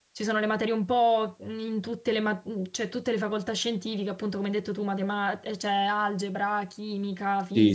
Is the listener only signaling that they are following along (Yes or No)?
No